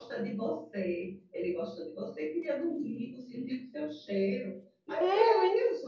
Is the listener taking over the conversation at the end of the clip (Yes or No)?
No